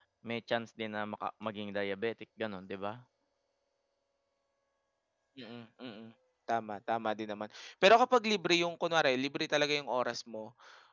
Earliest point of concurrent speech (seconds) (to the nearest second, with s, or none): none